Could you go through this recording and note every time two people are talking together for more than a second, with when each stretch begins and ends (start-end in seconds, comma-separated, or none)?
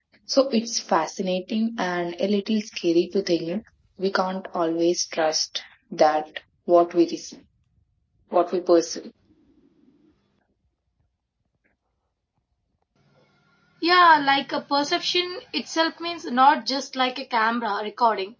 none